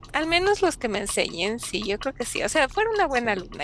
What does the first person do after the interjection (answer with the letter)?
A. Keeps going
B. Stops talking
A